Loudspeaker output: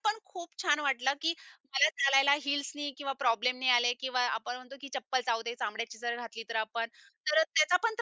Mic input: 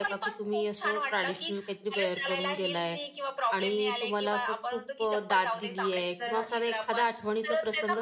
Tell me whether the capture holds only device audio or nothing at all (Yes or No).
No